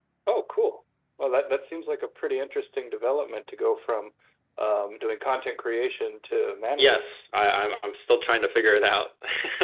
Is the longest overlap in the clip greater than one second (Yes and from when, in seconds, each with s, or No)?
No